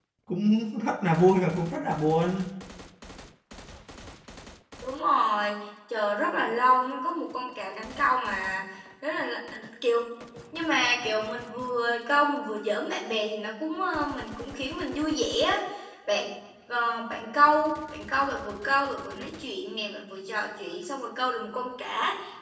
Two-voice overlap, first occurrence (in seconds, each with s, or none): none